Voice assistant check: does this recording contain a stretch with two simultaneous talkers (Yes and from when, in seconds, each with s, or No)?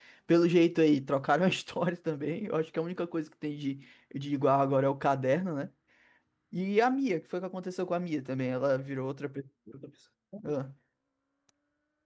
No